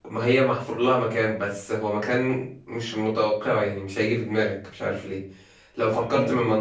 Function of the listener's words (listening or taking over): listening